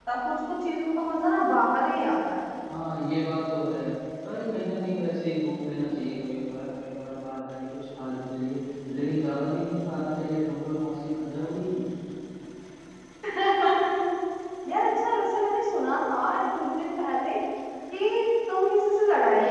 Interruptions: none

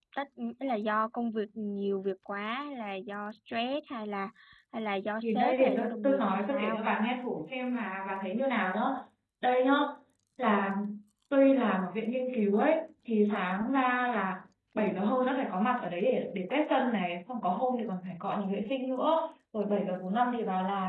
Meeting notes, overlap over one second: present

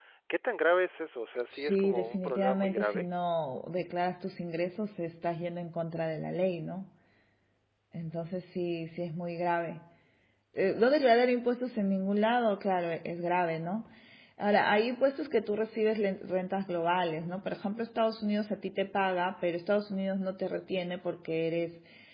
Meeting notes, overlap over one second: present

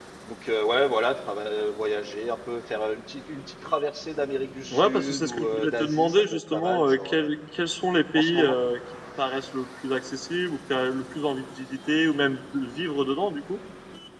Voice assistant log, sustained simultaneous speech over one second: present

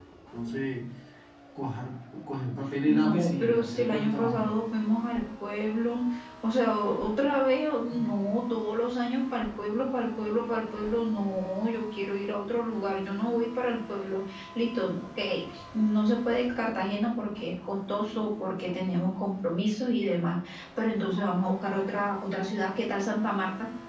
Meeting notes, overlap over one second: present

